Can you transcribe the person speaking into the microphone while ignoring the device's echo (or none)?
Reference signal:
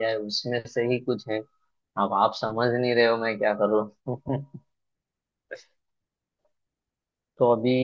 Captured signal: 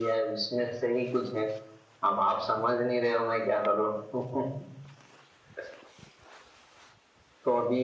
none